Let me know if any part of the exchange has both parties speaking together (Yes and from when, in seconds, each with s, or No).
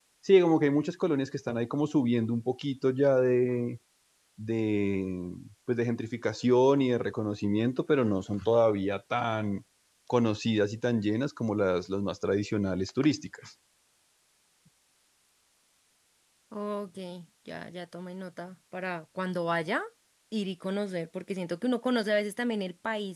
No